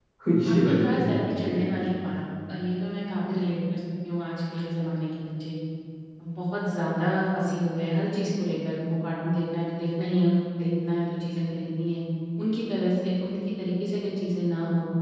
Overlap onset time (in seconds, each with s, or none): 0.5 s